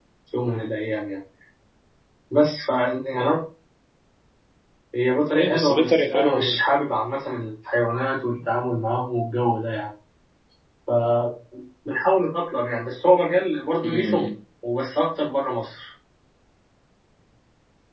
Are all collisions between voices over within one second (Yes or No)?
No